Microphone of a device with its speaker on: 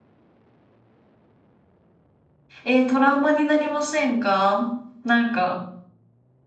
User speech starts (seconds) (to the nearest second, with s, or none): 3 s